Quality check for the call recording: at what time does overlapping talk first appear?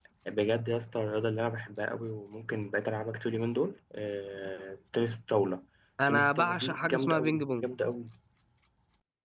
6.1 s

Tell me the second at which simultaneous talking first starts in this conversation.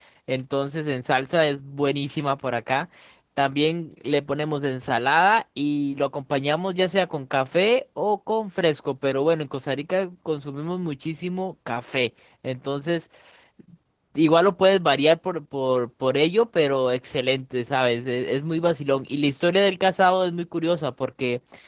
none

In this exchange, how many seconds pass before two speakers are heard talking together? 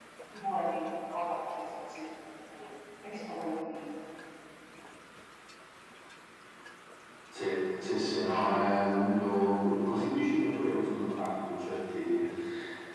none

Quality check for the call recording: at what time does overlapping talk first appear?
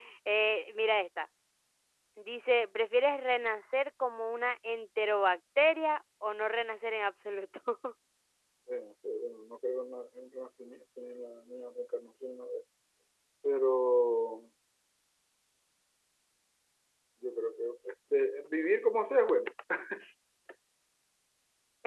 none

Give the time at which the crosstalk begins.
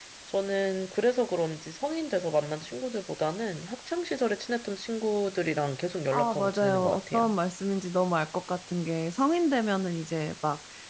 6.1 s

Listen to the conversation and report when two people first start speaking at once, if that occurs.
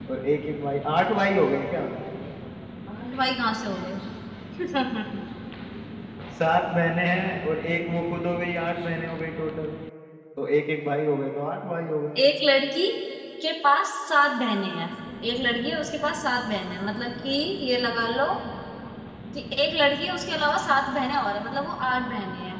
none

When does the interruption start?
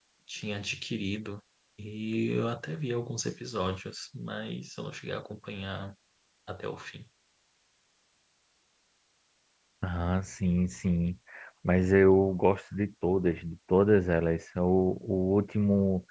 none

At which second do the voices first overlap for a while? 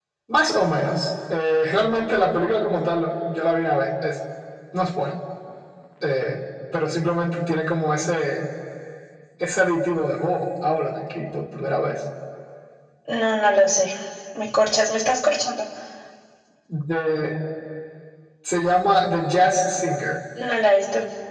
none

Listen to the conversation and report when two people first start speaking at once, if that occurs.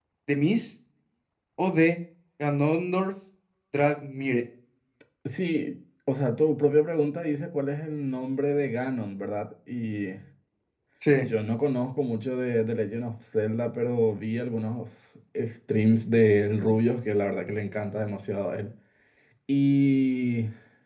none

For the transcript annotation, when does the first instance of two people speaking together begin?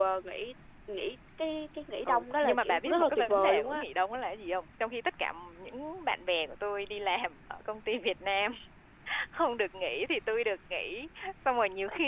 2.0 s

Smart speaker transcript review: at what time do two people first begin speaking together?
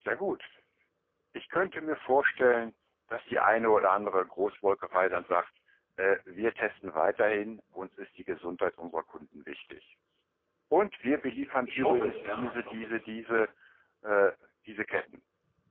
11.7 s

